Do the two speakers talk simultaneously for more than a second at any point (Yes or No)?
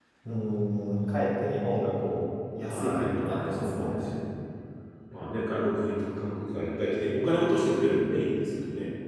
Yes